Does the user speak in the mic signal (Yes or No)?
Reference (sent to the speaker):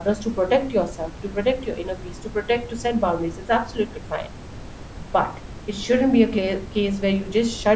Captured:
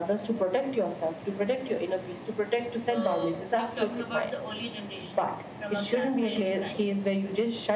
Yes